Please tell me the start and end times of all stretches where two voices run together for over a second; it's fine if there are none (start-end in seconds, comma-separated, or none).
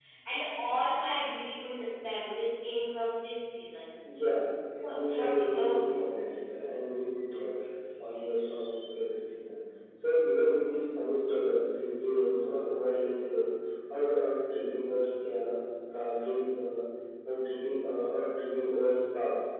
4.9-6.1